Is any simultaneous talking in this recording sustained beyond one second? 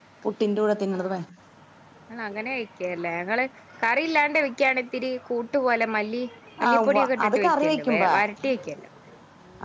Yes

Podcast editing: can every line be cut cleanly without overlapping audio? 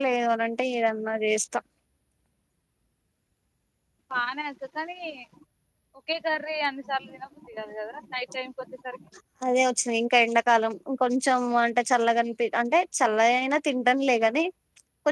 Yes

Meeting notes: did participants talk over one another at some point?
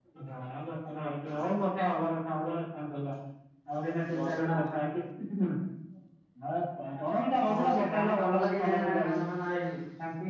Yes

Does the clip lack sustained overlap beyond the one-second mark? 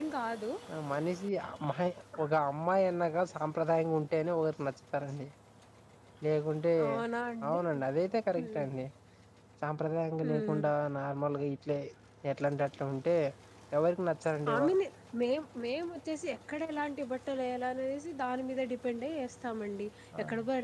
Yes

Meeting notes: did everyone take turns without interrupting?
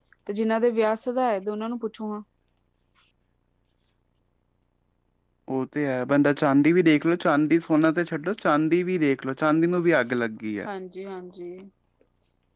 Yes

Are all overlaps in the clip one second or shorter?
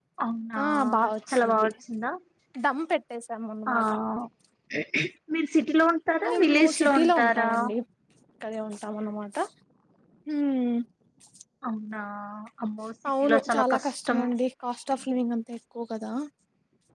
No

